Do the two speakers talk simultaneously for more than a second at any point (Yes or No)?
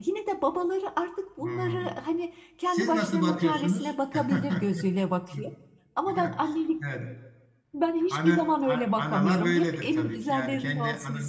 Yes